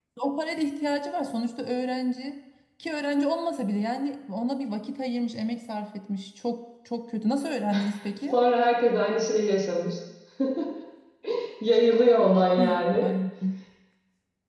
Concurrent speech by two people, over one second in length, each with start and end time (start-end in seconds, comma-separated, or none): none